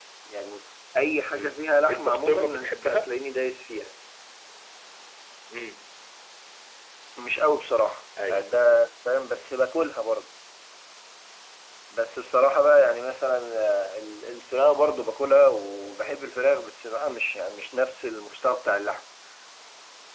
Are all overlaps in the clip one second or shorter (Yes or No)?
No